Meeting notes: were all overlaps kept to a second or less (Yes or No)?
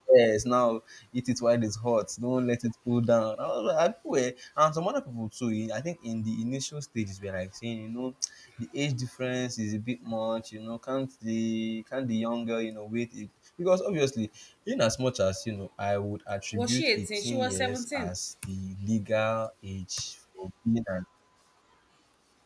No